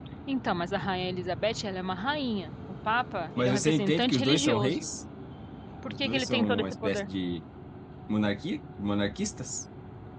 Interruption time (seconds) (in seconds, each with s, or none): 3.4 s